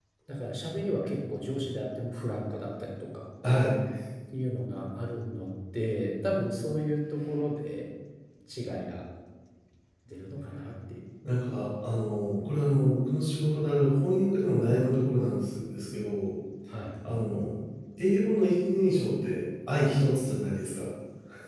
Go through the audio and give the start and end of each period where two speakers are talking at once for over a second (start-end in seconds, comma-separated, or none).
none